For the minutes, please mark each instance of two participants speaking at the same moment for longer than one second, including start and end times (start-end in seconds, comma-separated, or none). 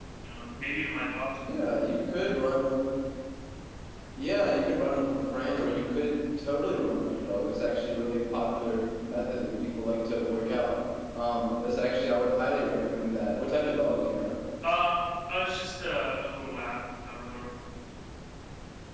none